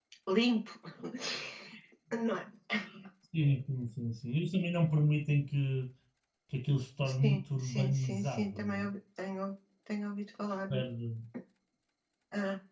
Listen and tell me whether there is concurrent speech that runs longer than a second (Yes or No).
Yes